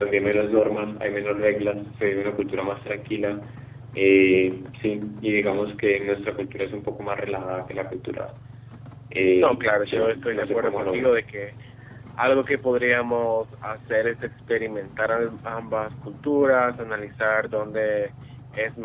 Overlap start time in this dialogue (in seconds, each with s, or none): 9.4 s